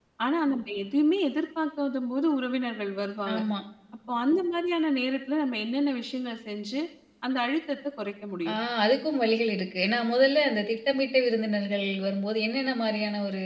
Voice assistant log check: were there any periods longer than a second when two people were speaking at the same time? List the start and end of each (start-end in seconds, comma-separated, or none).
none